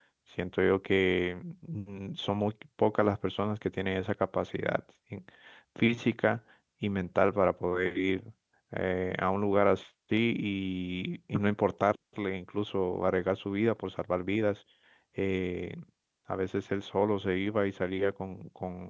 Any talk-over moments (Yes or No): No